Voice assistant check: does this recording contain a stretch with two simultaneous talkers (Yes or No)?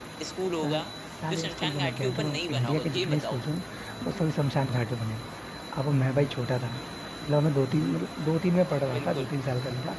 Yes